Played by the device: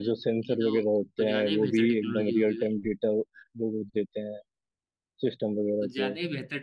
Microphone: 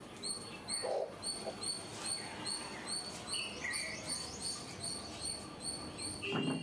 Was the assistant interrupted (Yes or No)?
No